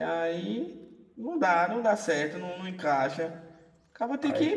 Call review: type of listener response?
listening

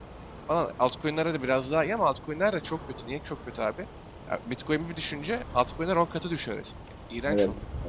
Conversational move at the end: taking over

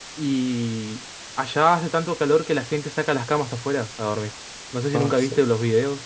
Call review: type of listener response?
listening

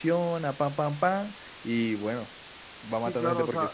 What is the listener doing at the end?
taking over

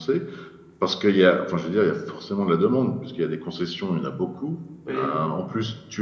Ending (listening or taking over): listening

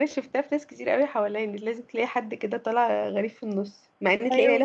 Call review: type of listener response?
listening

